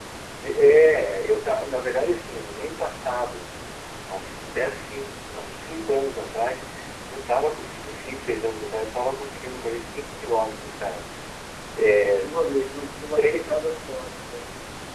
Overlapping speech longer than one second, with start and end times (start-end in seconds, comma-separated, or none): none